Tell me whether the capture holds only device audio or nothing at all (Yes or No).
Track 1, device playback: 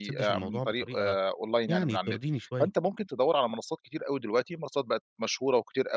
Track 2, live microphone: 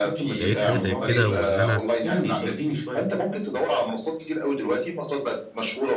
No